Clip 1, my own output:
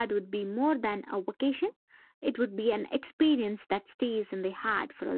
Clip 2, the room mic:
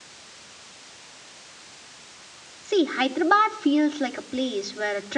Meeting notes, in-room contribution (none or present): present